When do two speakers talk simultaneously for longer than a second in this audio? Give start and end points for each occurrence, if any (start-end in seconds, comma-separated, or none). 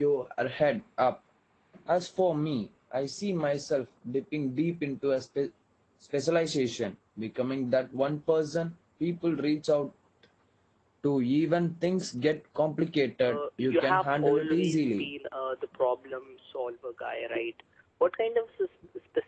13.2-15.1